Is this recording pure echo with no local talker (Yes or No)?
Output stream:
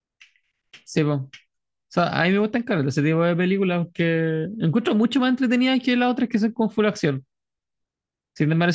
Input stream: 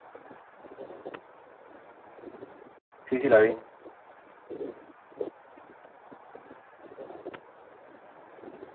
No